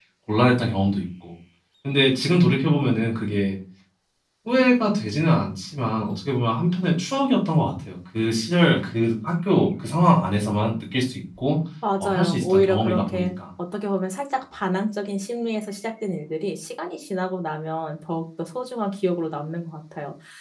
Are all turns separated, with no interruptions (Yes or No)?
No